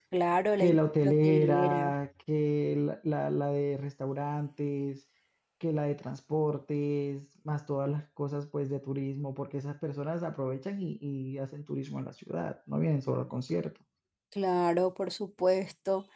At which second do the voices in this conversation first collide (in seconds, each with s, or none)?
0.6 s